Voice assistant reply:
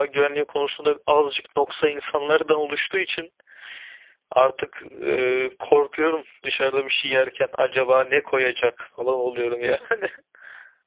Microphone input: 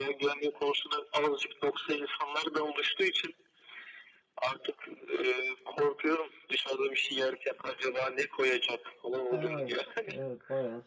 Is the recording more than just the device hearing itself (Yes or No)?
Yes